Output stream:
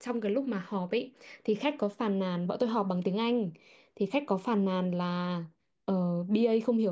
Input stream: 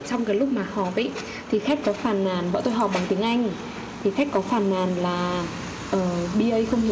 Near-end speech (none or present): none